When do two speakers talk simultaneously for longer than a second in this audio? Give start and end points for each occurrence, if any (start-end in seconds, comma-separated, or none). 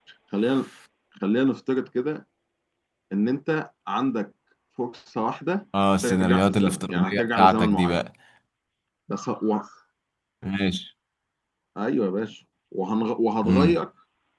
6.0-8.0